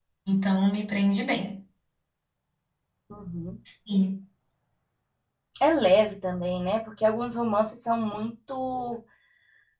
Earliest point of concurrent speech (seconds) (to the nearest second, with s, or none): none